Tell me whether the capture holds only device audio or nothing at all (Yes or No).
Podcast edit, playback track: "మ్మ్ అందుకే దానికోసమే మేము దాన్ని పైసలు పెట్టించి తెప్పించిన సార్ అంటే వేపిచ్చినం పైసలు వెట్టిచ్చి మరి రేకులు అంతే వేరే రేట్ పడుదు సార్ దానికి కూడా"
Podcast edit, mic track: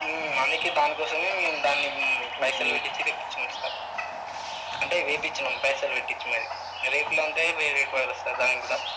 No